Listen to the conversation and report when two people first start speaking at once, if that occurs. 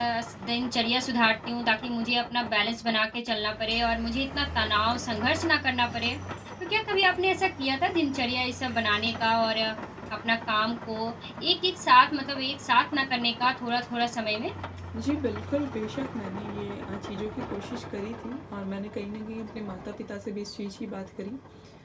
none

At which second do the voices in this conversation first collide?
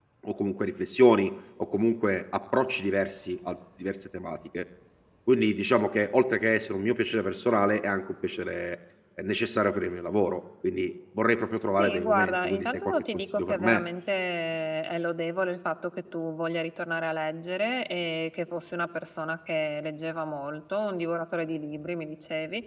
12 s

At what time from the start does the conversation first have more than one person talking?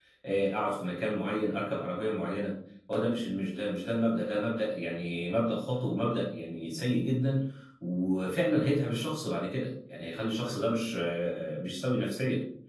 none

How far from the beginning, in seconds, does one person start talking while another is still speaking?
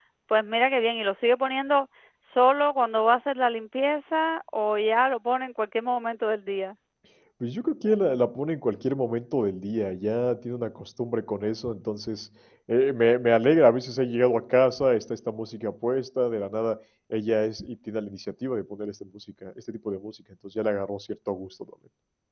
none

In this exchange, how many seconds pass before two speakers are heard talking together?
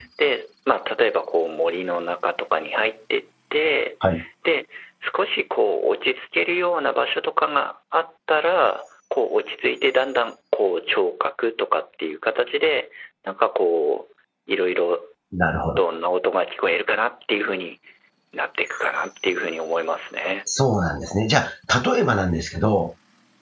none

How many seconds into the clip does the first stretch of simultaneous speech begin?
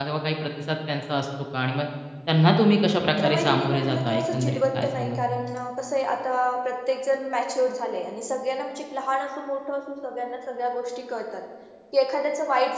3 s

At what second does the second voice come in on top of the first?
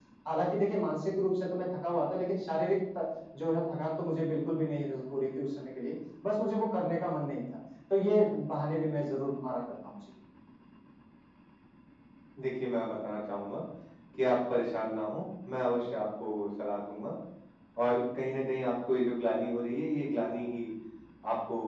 none

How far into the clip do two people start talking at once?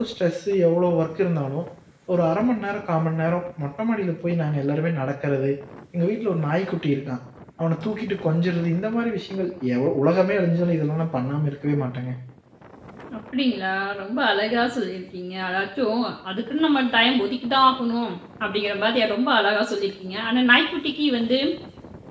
none

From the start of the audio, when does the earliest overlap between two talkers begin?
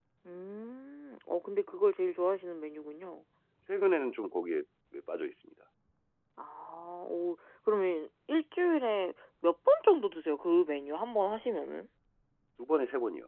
none

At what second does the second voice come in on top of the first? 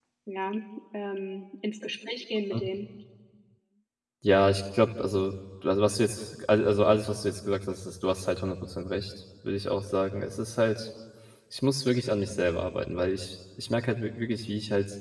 none

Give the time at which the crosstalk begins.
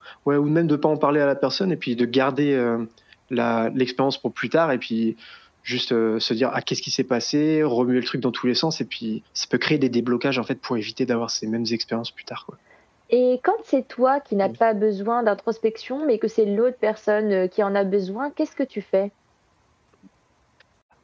none

